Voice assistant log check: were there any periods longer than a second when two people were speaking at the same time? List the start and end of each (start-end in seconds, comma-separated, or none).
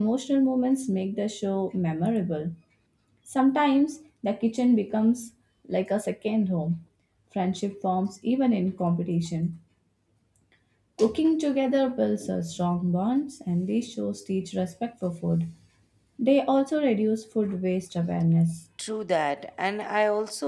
none